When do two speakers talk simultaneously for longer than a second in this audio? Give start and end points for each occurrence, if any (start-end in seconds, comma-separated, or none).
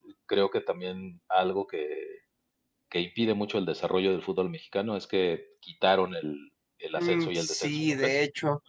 7.0-8.2